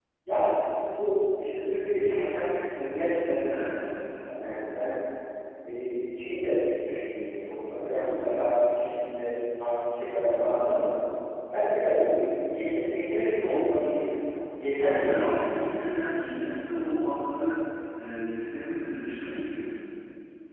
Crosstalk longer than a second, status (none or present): none